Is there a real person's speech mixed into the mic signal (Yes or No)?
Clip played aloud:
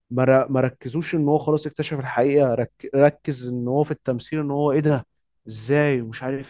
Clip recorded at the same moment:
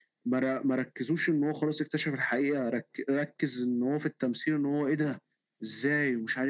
No